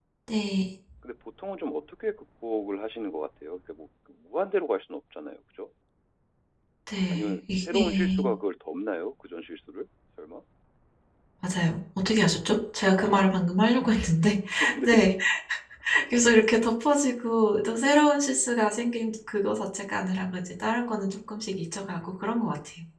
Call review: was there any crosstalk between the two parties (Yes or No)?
Yes